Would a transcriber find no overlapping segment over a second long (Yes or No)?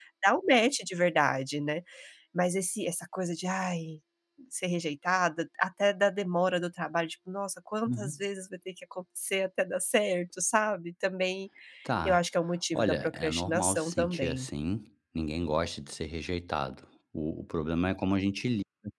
No